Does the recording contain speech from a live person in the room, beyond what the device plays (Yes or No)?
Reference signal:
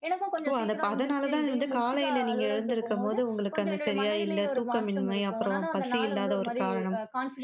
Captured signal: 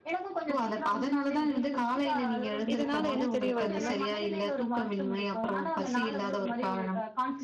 Yes